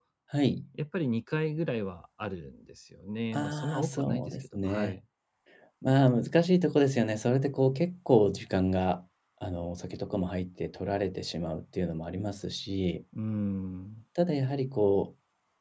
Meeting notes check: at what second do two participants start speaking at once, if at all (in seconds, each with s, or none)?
3.3 s